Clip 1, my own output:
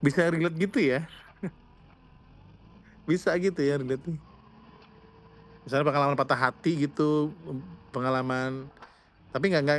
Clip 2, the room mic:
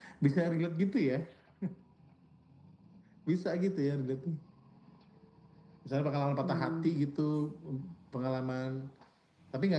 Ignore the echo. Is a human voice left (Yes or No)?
Yes